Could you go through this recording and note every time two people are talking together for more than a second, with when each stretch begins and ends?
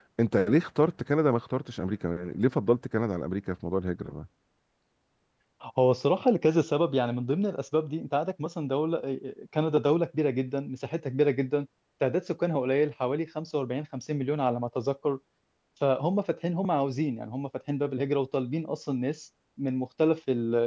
none

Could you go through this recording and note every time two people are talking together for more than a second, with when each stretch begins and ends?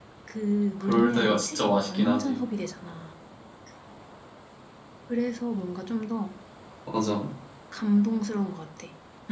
0.8-2.4

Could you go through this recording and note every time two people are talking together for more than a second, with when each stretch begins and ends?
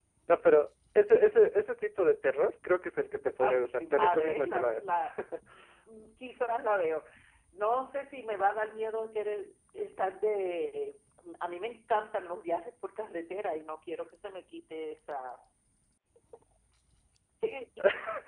3.4-4.8

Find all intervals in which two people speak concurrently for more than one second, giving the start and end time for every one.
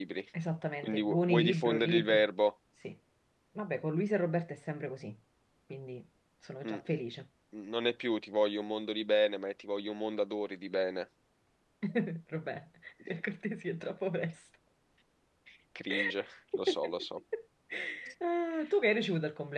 0.8-2.2

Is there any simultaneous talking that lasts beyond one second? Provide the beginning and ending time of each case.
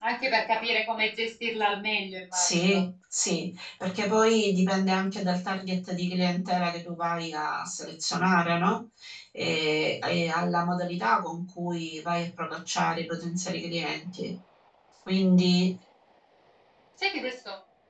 none

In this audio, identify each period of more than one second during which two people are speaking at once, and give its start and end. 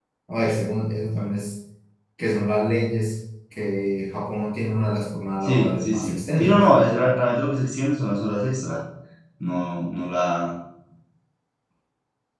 5.4-6.6

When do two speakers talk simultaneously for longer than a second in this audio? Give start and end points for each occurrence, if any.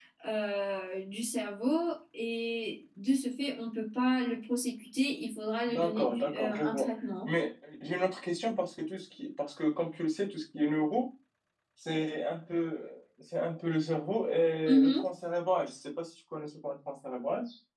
5.7-6.9

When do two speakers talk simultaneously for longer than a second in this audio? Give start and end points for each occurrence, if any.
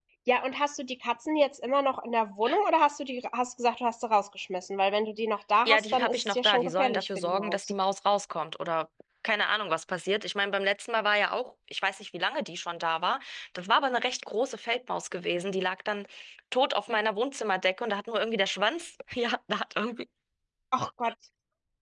5.7-7.7

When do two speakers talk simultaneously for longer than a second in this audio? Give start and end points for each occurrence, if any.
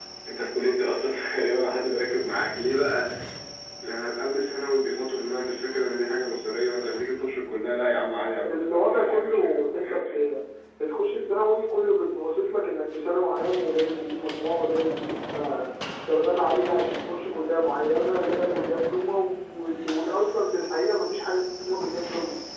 8.5-10.3

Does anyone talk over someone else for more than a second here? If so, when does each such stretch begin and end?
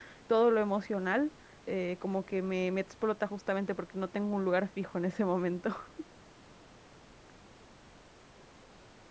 none

